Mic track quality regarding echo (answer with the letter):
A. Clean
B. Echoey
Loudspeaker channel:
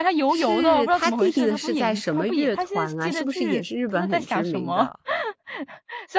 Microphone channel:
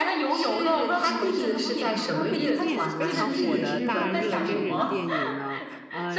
B